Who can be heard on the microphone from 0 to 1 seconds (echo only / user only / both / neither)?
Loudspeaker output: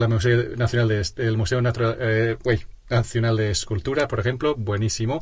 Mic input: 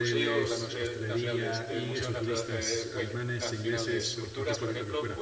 both